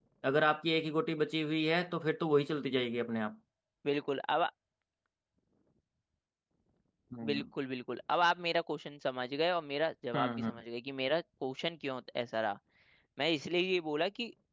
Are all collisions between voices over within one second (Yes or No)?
Yes